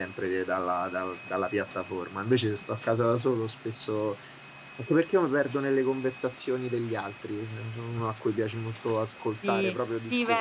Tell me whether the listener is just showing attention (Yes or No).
No